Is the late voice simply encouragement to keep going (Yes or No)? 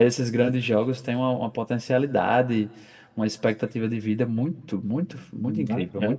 No